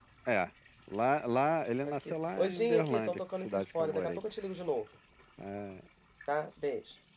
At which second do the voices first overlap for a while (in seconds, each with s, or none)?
1.8 s